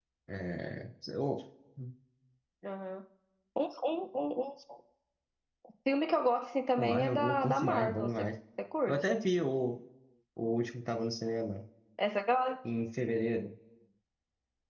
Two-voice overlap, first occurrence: 7 s

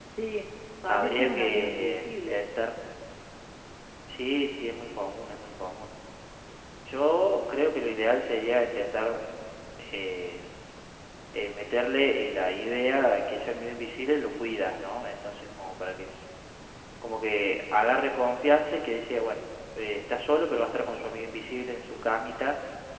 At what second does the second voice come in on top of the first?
1 s

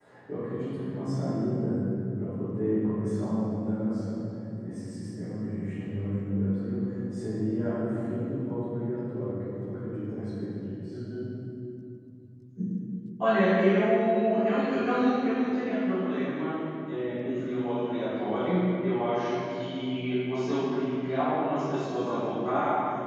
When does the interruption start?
none

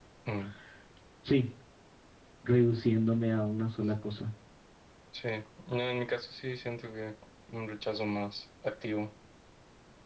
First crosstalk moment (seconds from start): none

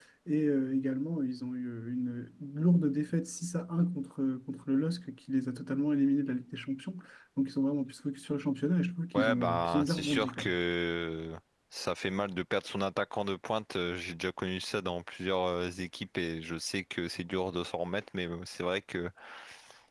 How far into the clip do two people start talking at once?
9 s

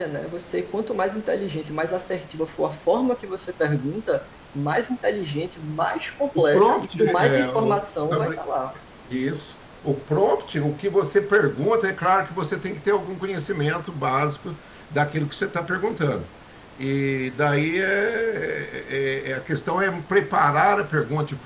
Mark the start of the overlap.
6 s

